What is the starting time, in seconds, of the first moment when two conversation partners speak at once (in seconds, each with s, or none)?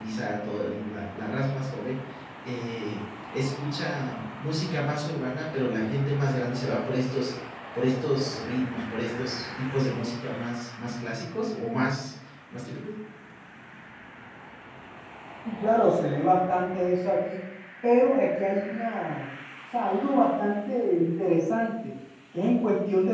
none